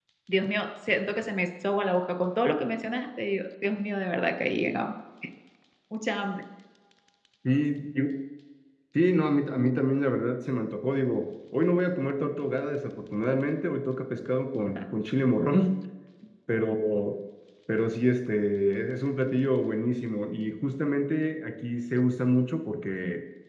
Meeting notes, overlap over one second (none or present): none